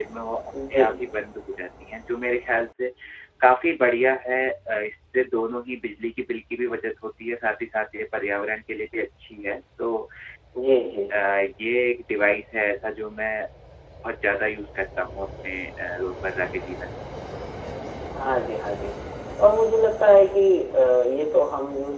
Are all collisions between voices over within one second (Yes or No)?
Yes